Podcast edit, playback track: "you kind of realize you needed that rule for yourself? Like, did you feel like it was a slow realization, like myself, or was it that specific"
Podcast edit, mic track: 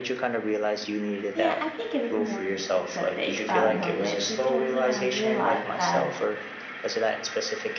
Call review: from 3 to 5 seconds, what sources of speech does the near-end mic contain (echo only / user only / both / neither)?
both